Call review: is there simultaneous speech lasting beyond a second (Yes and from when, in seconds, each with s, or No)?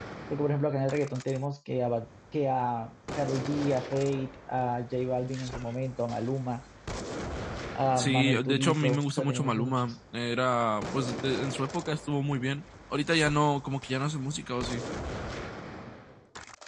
Yes, from 8.0 s